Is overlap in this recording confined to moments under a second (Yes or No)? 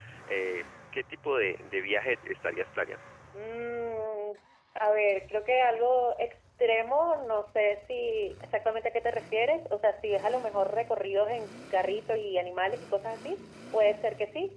Yes